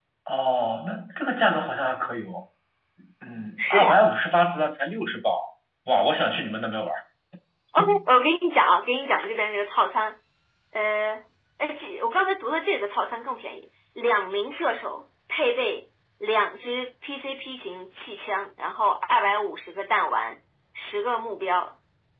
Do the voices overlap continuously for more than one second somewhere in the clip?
No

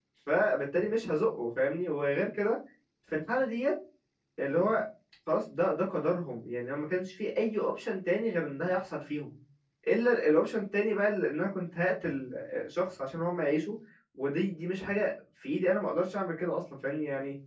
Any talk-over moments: No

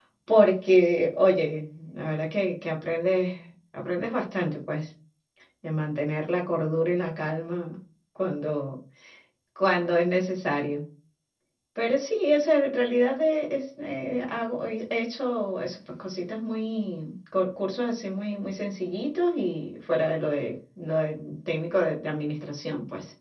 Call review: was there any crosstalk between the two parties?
No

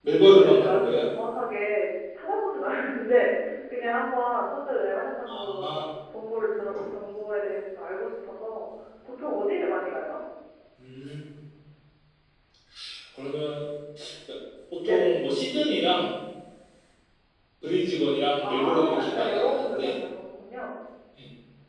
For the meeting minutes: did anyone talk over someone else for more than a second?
Yes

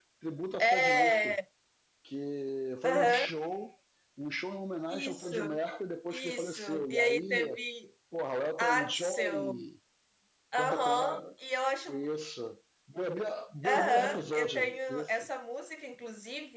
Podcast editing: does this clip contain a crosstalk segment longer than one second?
Yes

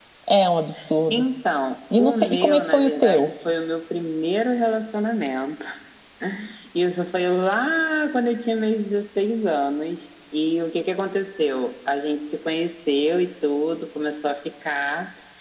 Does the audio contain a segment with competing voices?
Yes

